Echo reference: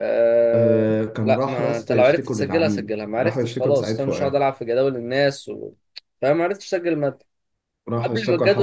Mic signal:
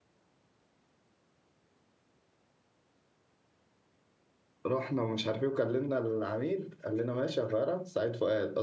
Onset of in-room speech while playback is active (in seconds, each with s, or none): 4.6 s